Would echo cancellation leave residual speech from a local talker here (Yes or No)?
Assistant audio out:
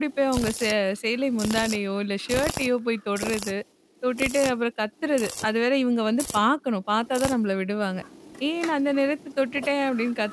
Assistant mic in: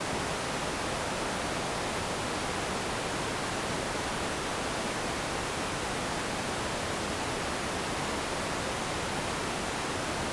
No